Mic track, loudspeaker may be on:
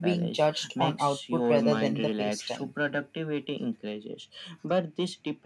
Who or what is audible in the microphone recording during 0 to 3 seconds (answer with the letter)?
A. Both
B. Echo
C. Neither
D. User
A